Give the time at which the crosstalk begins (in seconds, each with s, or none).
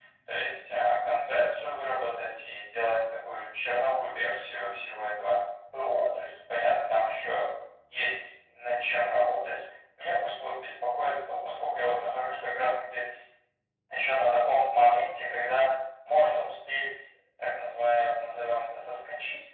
none